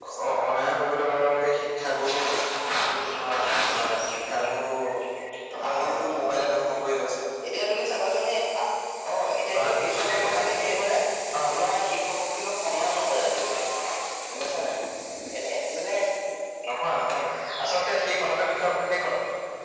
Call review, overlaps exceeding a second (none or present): present